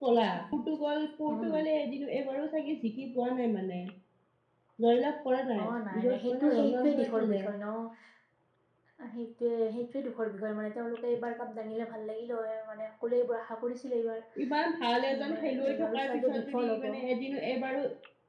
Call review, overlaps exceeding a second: present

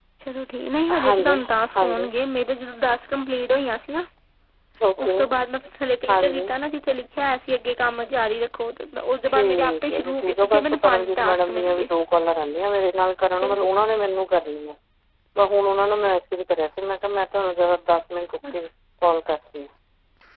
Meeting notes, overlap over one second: present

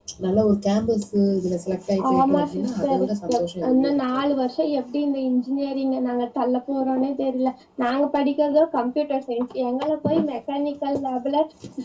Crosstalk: present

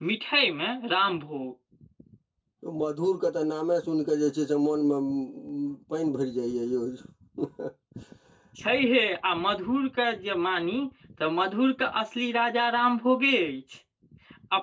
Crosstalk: none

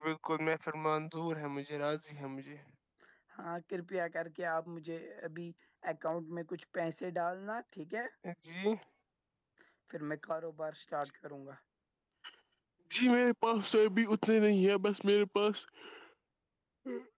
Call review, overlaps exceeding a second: none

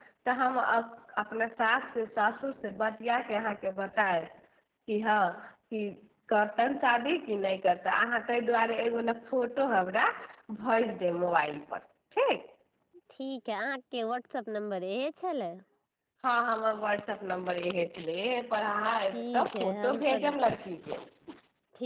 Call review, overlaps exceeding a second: present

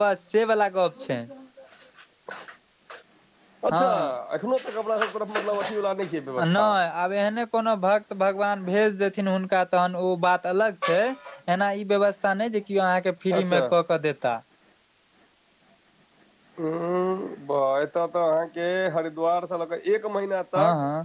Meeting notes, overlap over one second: none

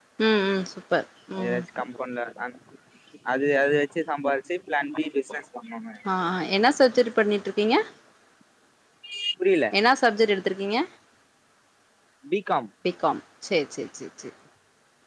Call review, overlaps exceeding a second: none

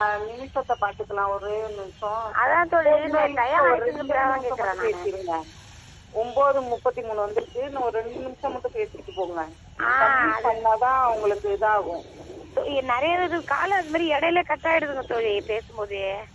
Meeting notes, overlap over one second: present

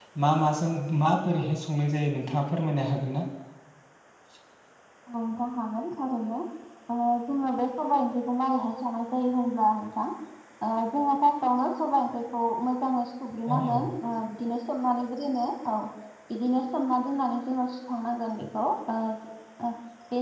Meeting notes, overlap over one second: none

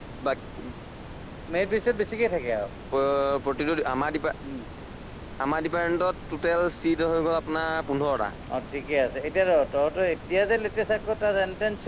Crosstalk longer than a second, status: none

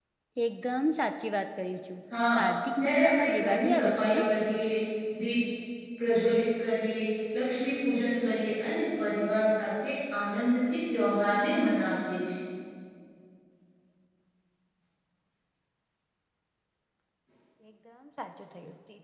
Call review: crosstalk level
present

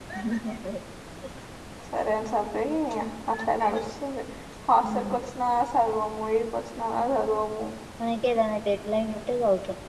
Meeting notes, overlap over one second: none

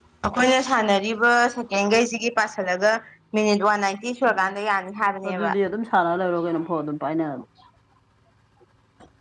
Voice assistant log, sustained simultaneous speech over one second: none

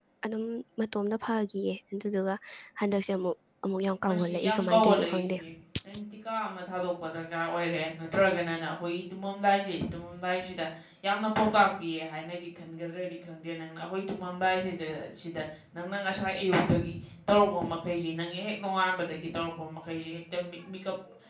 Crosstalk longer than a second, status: present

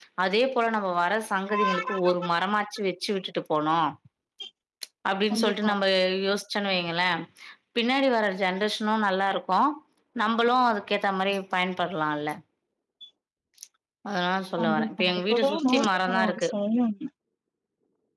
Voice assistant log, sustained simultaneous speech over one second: present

